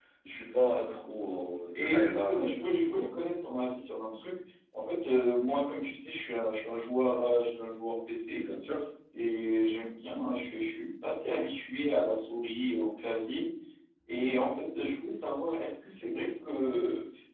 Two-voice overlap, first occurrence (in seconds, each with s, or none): 1.8 s